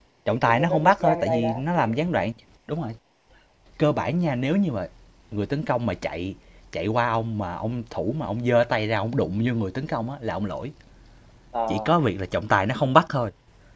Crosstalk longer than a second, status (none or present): present